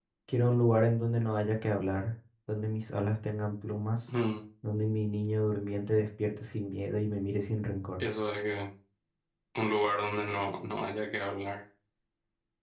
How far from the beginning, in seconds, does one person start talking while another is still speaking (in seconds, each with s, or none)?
none